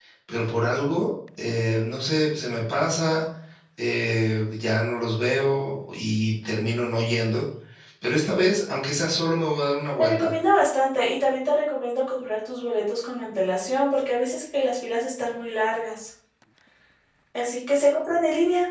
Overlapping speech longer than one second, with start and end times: none

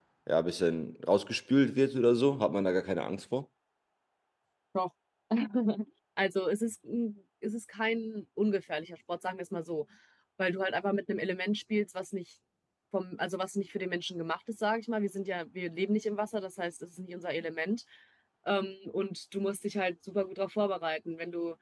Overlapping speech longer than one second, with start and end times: none

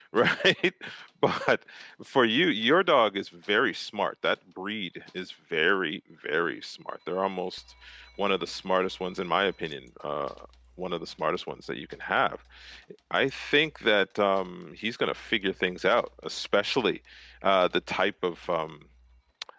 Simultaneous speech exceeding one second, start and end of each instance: none

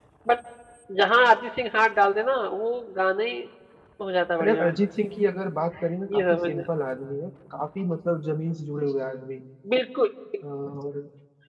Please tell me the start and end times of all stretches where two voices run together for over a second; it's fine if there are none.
none

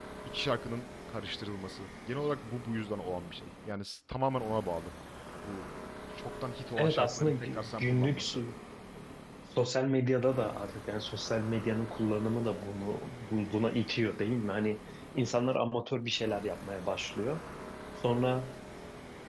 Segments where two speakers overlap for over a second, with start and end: 6.8-8.4

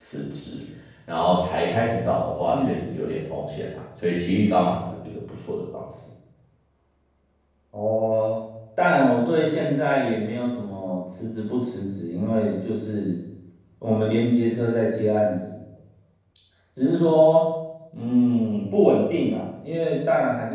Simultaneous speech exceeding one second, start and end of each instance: none

